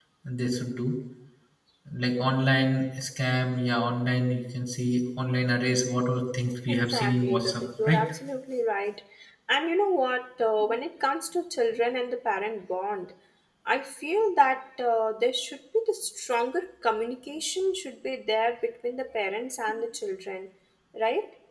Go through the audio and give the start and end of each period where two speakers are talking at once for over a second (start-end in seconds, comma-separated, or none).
6.7-8.0